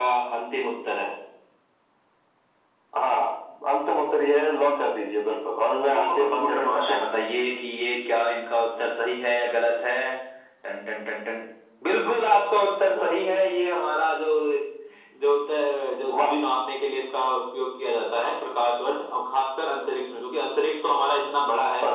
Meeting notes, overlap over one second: present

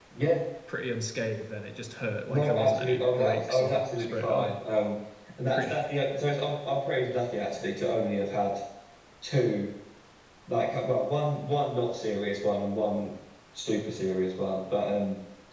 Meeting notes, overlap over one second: present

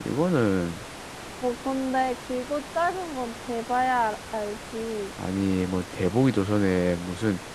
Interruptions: none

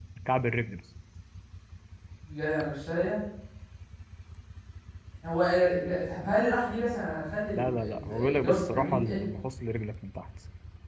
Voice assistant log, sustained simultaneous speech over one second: present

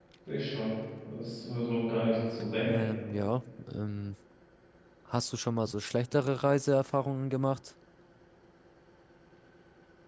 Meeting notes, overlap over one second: none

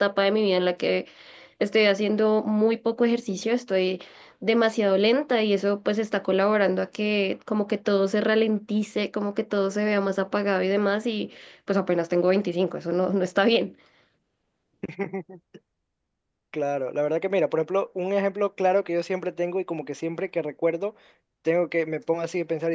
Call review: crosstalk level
none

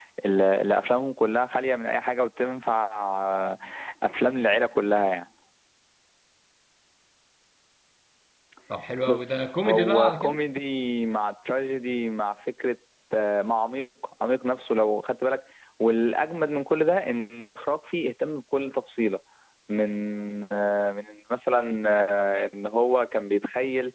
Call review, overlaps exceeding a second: present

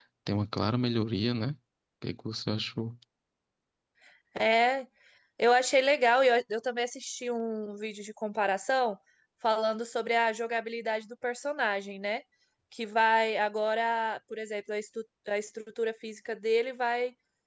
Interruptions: none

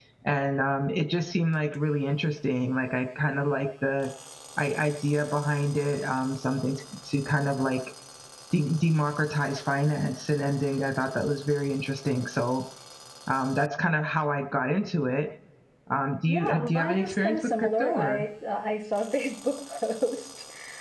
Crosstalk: present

